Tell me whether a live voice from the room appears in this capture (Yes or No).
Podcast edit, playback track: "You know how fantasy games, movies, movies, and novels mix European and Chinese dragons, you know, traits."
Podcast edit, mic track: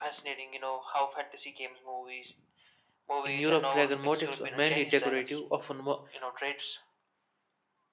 Yes